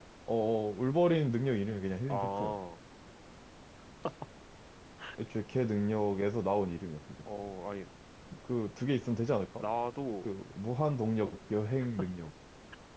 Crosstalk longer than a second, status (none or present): none